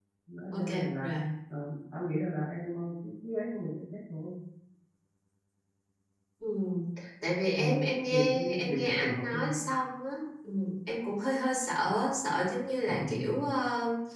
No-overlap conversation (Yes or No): No